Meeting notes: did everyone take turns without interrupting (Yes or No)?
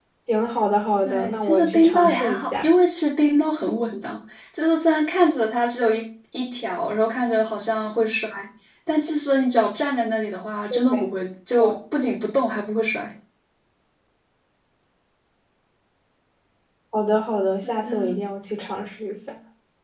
No